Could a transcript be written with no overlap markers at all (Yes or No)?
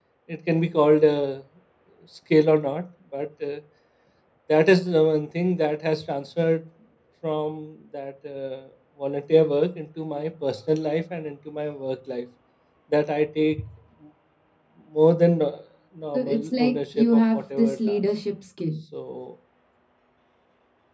No